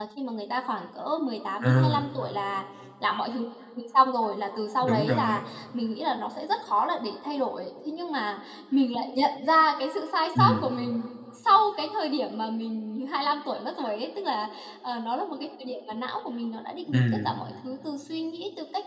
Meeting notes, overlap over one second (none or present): none